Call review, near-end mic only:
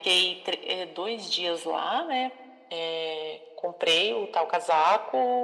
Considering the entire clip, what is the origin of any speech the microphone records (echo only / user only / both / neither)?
echo only